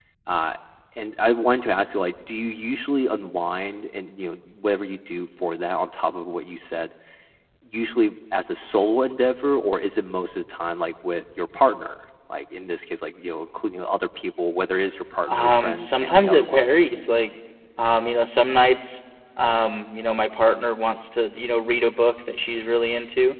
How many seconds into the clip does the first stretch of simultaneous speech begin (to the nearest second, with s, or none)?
15 s